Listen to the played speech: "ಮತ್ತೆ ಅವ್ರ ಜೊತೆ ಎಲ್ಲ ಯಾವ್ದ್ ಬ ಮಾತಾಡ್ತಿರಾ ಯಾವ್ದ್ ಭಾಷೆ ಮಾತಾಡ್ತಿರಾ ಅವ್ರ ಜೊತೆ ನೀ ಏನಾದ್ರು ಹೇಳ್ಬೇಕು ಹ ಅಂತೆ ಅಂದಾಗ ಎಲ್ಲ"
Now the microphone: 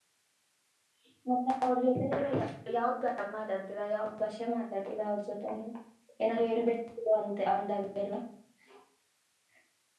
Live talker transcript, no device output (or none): none